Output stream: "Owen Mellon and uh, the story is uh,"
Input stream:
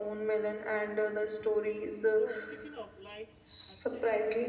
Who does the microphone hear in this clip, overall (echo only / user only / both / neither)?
both